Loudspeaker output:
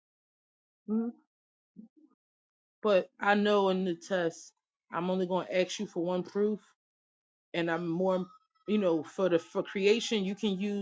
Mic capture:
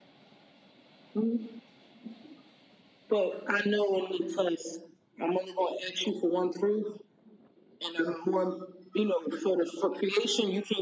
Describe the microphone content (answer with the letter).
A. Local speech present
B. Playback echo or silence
B